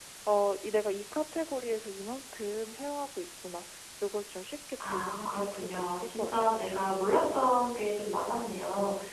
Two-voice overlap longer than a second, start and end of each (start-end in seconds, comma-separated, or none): 4.8-6.7